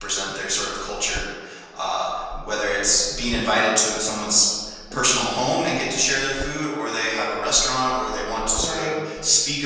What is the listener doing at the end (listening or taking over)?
listening